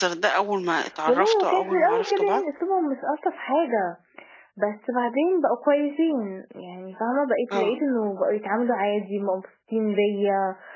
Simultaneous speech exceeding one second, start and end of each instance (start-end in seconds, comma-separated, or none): 1.1-2.4